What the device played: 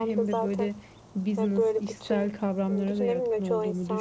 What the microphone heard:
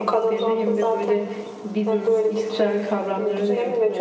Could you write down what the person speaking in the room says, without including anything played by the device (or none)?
none